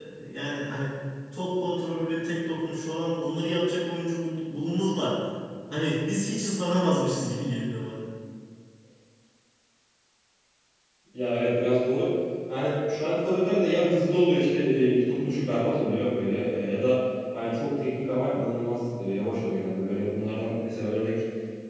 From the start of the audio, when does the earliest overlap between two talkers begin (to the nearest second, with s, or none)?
none